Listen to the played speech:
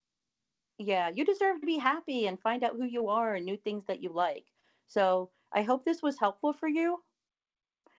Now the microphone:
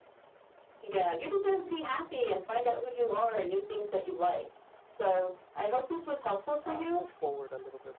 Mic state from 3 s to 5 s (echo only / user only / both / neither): echo only